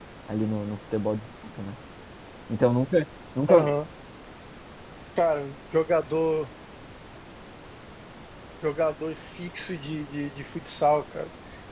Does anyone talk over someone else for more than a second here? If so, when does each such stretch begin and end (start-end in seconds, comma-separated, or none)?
none